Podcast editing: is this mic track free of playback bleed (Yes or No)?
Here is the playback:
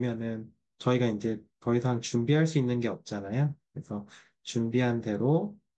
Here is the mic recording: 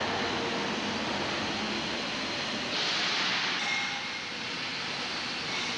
Yes